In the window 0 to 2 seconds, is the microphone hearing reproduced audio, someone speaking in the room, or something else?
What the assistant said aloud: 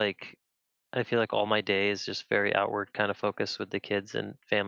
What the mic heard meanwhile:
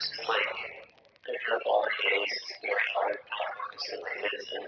echo only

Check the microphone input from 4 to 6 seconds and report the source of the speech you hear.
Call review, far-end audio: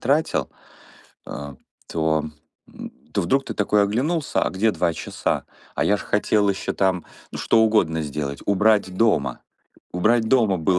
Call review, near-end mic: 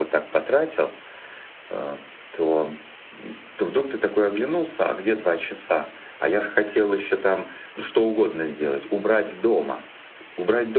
echo only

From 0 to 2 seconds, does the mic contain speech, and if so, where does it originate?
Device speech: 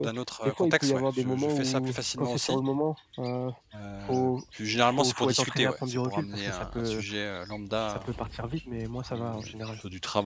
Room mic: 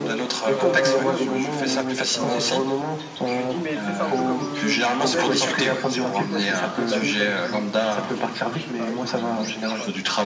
both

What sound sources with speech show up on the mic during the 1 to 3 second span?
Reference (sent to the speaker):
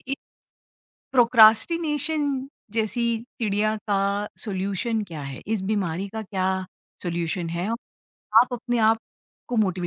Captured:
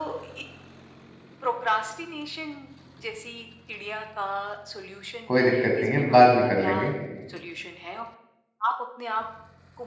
echo only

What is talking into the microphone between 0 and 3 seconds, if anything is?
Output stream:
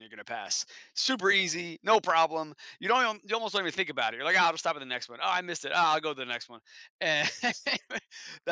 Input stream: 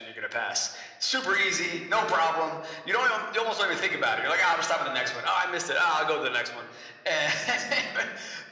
echo only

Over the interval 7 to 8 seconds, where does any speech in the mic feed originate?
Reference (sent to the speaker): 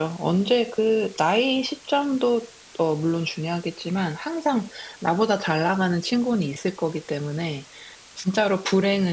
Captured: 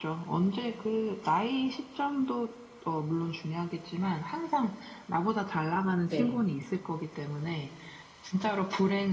echo only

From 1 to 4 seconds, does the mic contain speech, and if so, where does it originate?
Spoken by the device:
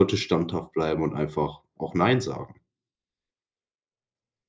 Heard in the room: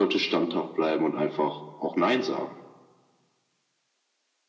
echo only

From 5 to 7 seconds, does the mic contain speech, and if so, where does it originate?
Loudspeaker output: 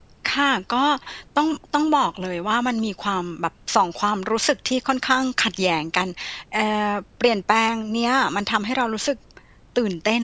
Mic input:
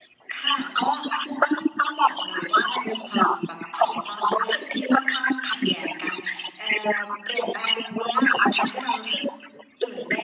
echo only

